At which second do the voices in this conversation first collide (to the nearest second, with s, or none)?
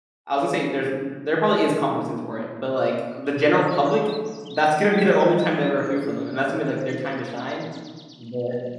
none